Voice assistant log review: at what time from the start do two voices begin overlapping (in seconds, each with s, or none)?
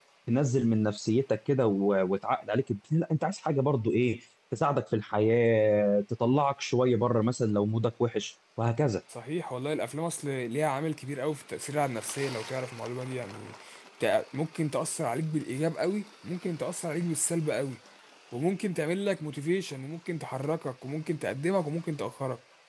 none